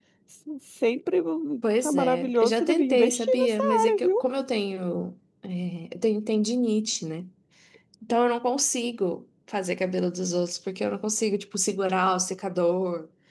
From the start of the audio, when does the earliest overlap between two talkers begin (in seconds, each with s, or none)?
1.6 s